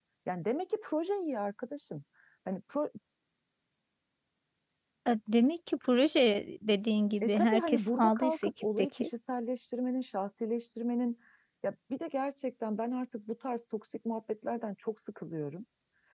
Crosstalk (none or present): present